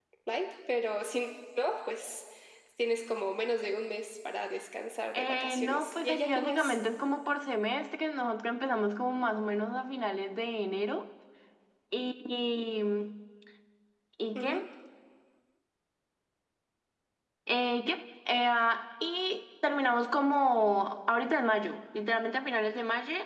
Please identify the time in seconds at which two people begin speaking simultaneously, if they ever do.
5.1 s

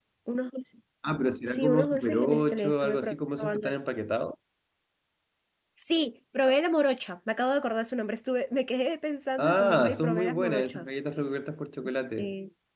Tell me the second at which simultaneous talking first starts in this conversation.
1.4 s

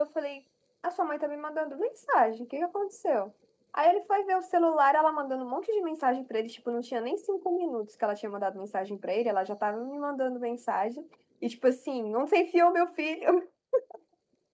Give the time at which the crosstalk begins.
none

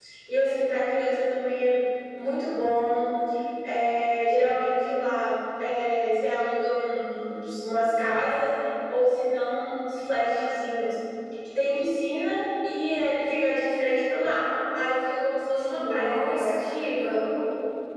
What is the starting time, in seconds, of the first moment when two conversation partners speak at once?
15.6 s

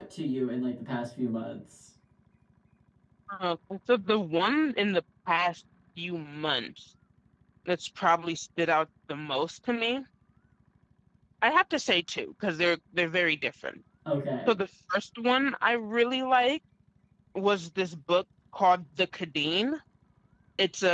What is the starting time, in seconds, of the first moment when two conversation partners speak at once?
none

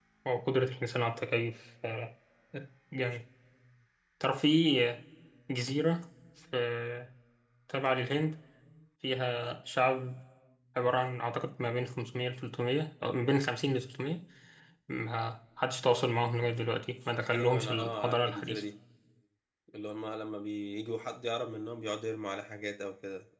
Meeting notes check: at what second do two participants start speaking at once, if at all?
17.3 s

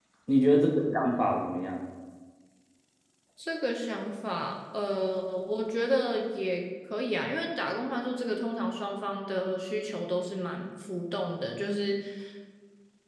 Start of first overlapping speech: none

